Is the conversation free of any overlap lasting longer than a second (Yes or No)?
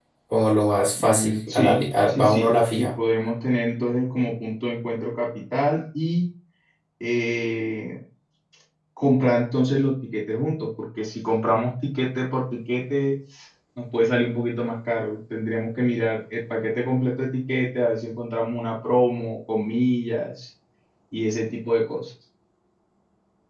No